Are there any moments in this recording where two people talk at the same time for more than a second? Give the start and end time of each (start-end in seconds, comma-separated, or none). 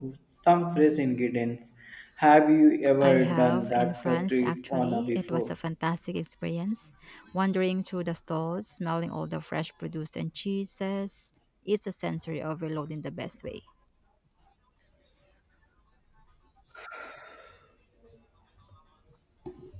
3.0-5.5